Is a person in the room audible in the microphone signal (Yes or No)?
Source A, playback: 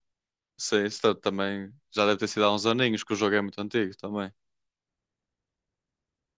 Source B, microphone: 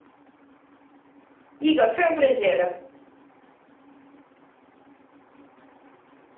Yes